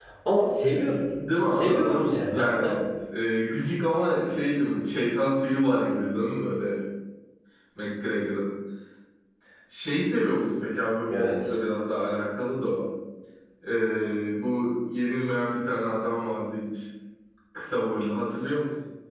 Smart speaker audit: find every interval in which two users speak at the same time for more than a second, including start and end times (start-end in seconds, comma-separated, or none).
1.5-2.8